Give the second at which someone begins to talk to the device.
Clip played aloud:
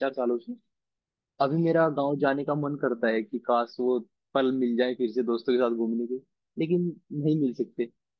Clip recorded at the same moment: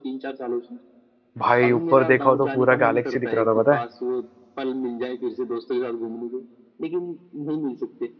1 s

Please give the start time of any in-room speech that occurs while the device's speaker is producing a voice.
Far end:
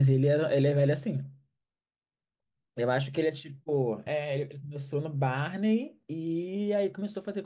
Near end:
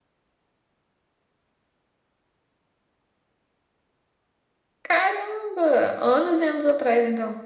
5 s

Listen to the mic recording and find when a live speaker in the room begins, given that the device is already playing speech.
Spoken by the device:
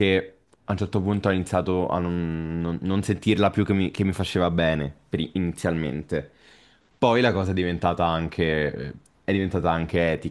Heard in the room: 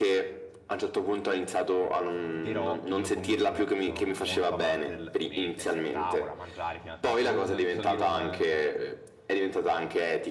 2 s

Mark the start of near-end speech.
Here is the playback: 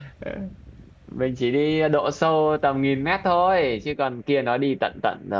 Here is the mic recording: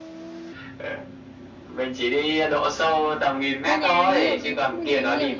4 s

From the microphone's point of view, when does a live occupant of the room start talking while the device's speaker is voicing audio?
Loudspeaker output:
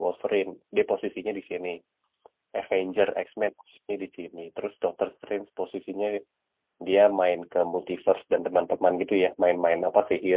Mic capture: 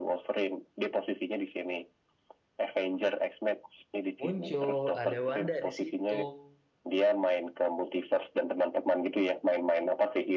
4 s

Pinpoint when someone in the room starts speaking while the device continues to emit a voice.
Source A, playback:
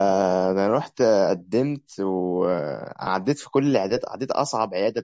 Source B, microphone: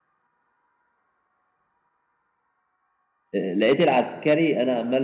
3 s

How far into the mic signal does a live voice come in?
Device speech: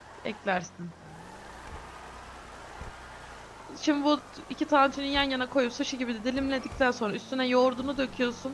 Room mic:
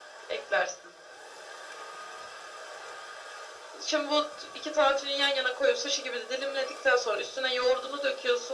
none

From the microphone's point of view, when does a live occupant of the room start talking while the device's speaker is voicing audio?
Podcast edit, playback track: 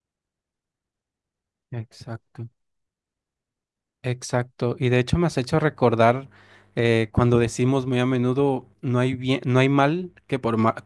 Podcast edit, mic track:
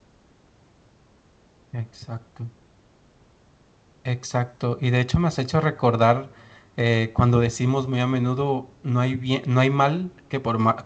none

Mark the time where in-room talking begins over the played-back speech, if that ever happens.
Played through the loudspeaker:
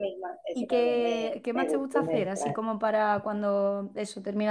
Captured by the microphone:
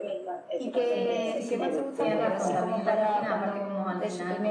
1 s

